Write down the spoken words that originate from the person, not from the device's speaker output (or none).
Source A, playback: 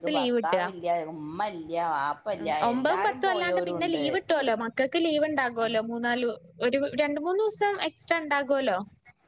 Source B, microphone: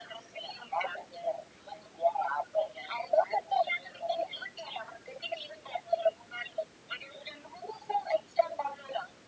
none